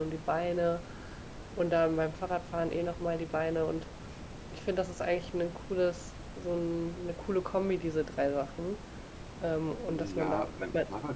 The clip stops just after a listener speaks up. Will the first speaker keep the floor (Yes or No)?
No